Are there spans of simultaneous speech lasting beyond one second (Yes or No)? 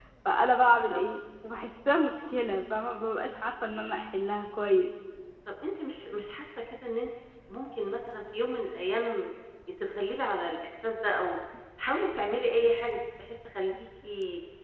No